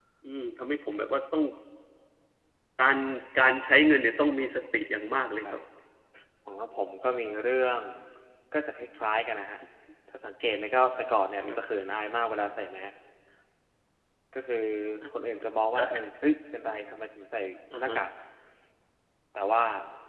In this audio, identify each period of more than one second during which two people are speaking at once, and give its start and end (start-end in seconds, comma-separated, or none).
none